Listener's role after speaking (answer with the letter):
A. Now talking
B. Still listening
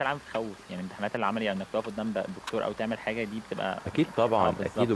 A